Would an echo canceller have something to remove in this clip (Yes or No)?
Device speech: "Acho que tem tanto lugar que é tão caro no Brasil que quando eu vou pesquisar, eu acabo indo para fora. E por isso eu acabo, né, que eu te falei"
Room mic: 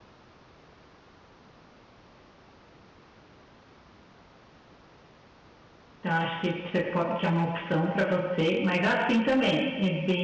No